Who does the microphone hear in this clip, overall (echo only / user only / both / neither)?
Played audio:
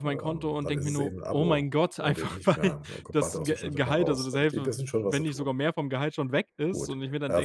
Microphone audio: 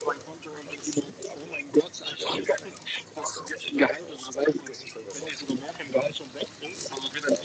echo only